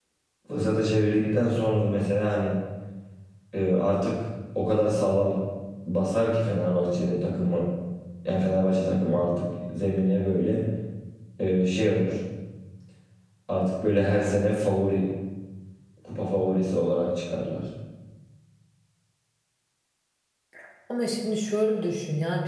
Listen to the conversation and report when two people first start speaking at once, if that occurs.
none

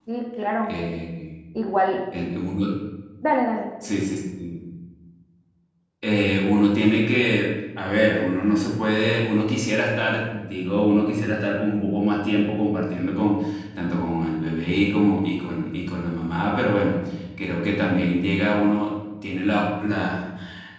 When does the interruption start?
none

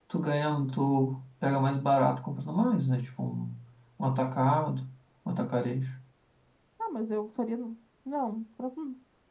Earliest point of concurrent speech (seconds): none

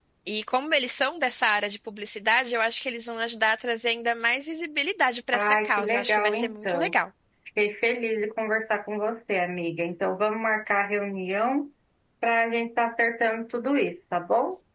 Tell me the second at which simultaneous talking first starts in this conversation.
5.3 s

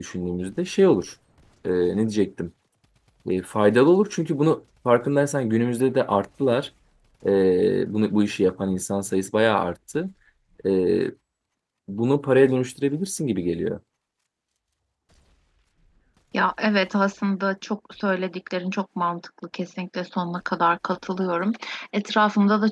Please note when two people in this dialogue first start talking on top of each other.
none

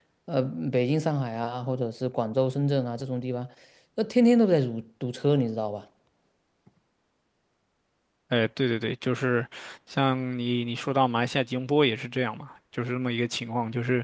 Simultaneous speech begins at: none

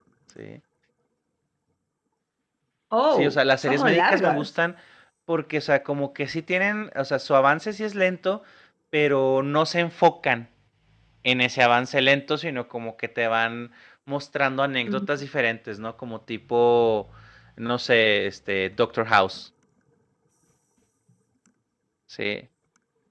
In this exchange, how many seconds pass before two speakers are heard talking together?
3.1 s

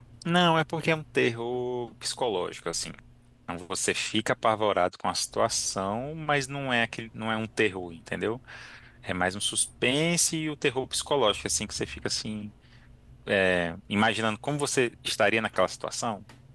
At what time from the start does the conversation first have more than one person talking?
none

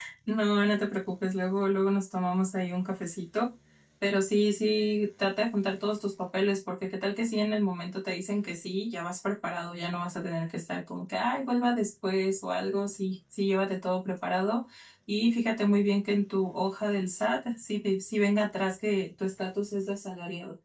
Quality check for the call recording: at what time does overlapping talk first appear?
none

